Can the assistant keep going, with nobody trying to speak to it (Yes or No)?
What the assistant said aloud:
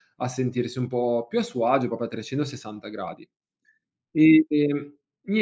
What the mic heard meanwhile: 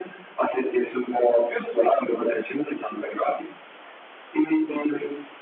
Yes